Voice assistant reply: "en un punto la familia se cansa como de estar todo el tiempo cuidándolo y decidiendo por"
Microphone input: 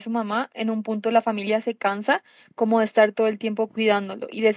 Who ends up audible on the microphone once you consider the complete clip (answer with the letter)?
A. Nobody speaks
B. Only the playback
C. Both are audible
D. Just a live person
B